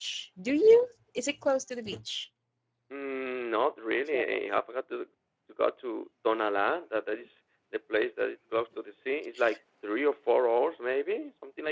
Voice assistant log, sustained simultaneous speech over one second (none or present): none